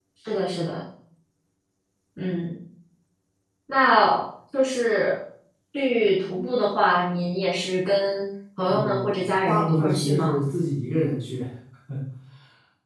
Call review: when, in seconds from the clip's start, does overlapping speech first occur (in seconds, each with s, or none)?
8.7 s